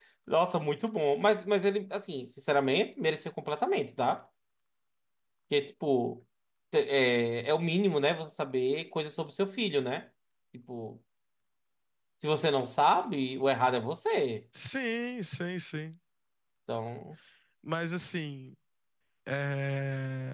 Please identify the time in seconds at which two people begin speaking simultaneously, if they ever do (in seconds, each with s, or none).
none